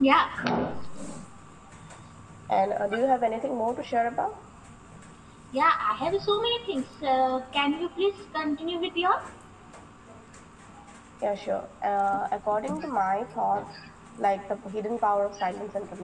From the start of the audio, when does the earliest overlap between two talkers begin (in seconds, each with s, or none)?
none